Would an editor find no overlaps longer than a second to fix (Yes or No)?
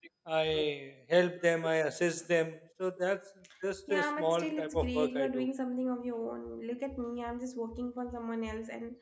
No